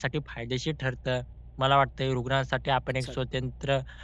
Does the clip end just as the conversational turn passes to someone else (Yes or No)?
No